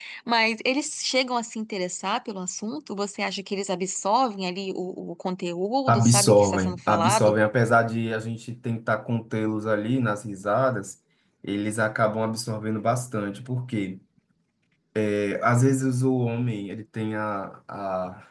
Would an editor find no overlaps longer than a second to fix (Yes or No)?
No